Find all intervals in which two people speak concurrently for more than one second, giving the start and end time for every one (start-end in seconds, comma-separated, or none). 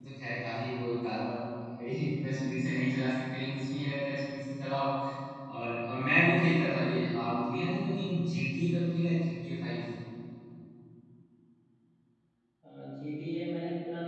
none